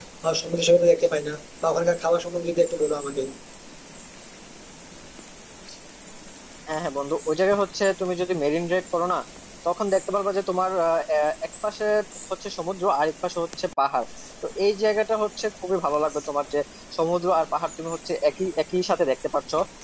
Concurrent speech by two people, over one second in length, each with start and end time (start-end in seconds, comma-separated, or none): none